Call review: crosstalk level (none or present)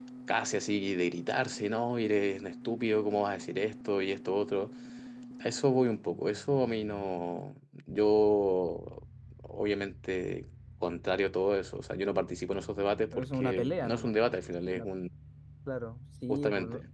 present